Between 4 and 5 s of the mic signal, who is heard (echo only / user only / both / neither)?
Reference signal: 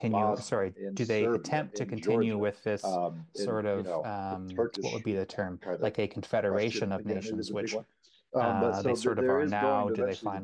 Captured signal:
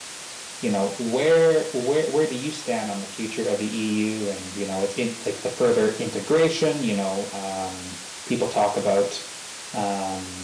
user only